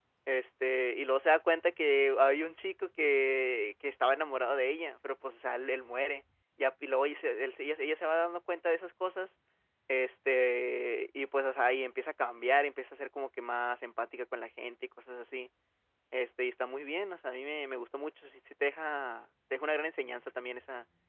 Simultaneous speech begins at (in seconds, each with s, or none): none